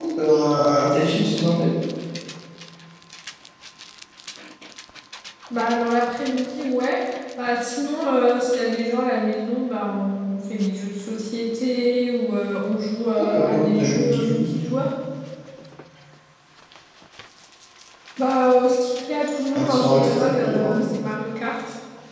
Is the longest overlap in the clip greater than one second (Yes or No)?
Yes